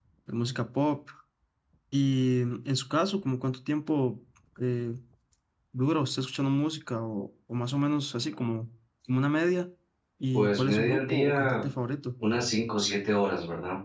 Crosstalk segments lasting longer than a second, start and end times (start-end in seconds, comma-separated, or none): 10.3-11.6